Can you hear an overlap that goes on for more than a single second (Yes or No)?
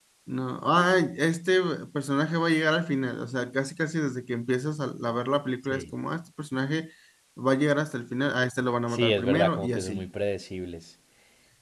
Yes